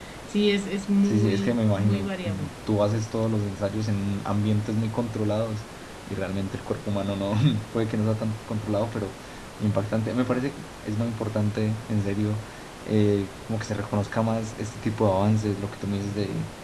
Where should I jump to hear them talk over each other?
1.1 s

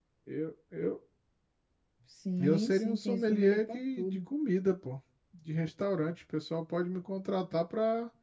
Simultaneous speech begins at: 2.4 s

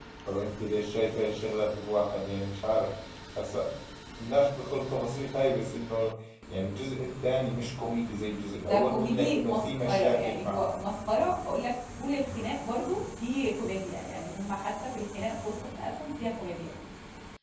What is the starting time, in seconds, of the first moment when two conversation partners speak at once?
8.6 s

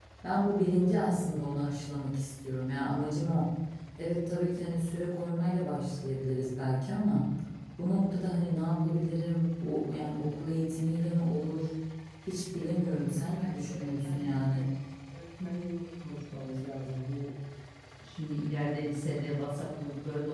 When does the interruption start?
13.4 s

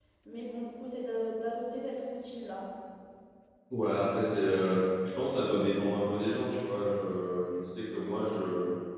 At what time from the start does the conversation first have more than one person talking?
none

